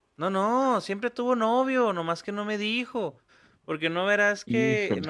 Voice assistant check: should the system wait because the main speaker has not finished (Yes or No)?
Yes